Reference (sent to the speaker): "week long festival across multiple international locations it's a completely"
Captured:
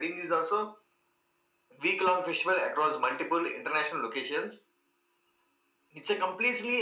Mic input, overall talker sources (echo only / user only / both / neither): echo only